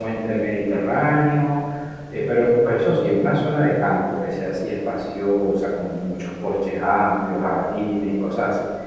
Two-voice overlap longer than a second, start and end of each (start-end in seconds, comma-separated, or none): none